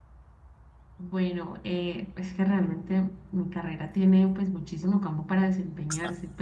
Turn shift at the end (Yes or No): No